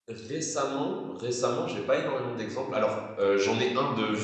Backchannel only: Yes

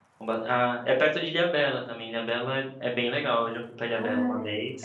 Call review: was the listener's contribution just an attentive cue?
No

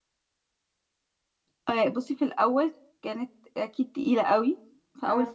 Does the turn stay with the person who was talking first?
Yes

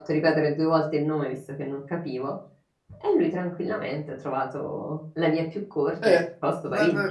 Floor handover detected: Yes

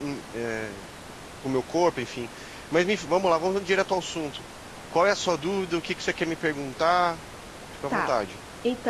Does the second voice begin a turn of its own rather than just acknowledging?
Yes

